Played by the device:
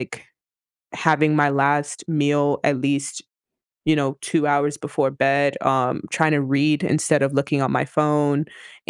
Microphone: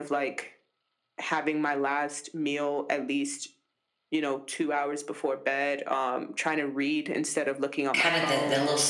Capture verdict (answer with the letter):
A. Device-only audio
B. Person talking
B